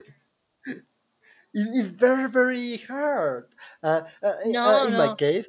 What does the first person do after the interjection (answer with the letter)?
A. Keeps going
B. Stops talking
A